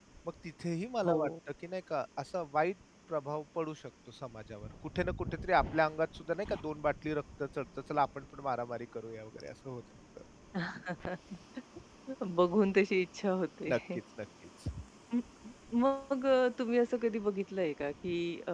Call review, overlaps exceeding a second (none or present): none